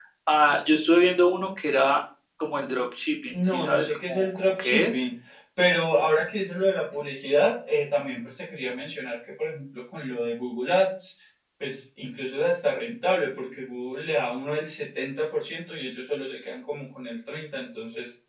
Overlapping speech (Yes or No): Yes